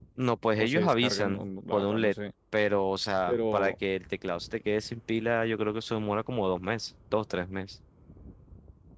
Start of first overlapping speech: 0.6 s

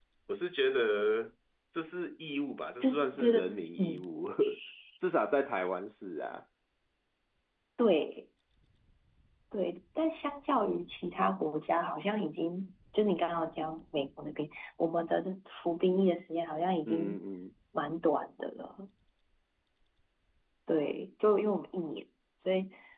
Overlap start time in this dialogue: 2.8 s

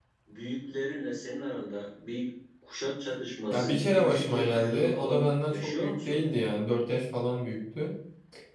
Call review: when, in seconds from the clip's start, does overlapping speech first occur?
3.5 s

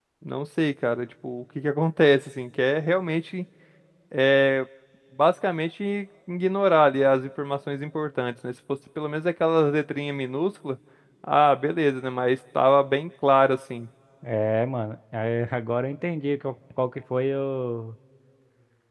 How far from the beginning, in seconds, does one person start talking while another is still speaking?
none

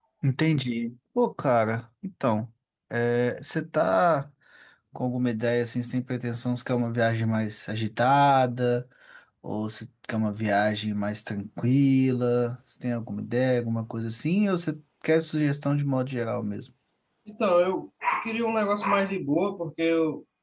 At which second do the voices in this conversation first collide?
none

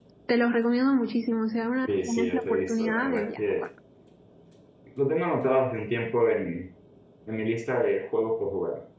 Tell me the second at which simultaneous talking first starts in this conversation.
1.9 s

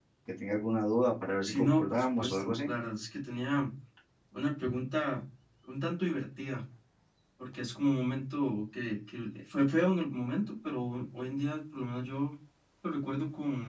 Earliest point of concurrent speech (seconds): 1.4 s

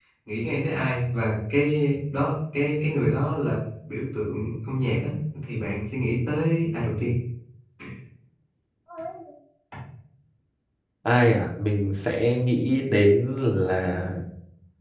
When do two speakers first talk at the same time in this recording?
none

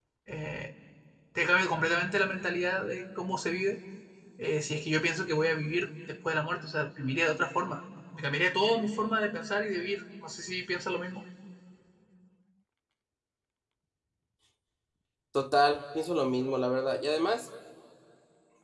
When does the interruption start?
none

